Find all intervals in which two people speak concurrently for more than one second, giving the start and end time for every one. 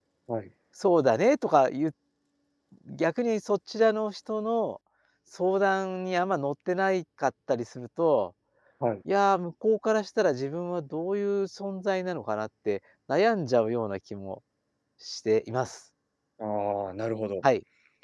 none

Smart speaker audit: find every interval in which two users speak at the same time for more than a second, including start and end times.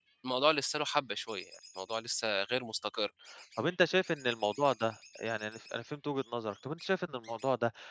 none

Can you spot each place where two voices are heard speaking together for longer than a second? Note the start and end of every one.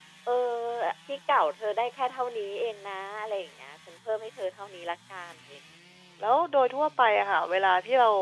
none

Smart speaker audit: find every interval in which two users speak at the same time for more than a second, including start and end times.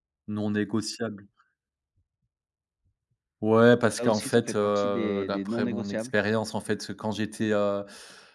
4.0-6.1

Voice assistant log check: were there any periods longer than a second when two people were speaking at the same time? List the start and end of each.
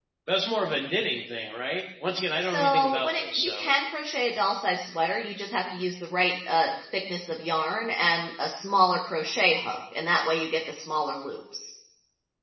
2.4-3.7

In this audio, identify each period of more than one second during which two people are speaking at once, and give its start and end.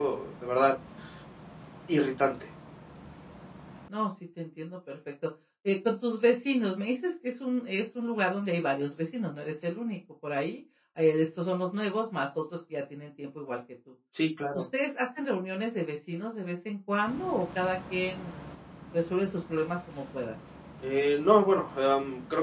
none

